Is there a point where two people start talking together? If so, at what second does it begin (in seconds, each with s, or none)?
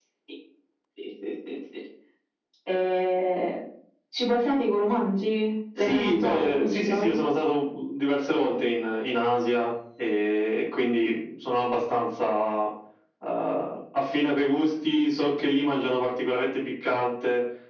5.8 s